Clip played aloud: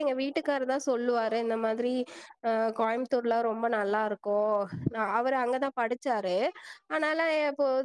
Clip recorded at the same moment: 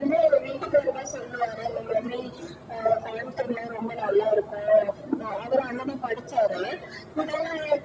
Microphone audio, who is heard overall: echo only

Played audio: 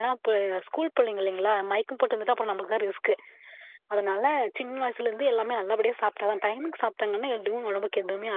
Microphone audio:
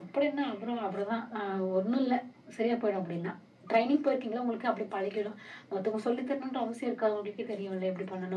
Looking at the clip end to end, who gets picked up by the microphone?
user only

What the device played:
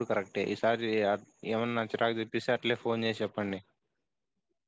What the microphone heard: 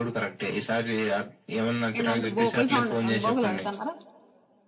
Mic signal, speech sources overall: both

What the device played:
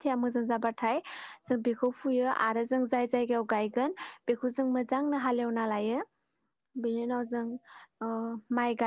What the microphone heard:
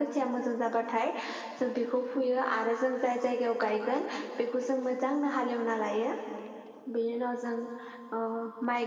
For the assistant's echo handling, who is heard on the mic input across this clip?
echo only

